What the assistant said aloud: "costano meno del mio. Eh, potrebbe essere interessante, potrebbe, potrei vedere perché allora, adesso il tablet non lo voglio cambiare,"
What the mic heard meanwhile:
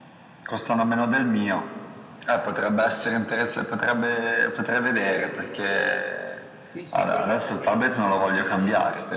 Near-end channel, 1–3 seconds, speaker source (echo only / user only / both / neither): echo only